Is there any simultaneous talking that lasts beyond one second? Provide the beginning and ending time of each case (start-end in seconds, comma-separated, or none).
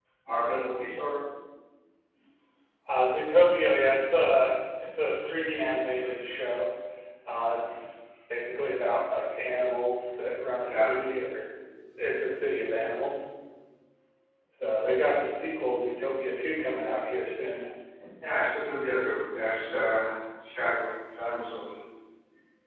none